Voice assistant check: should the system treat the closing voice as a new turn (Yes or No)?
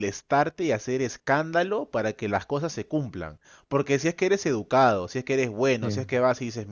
No